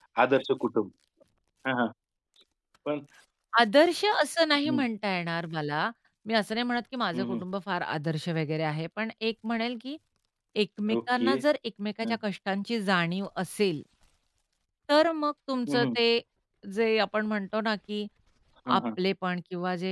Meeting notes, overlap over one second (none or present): none